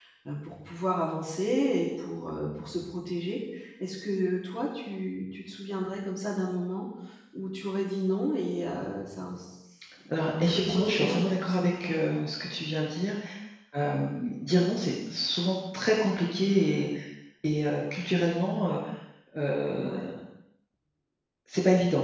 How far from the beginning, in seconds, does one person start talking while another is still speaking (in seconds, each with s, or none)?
10.2 s